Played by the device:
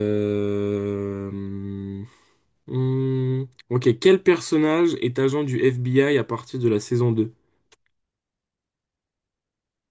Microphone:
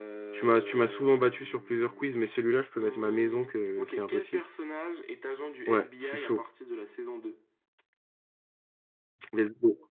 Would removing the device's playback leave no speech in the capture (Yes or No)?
No